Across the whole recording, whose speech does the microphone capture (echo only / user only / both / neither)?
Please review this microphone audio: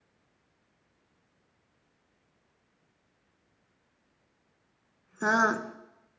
user only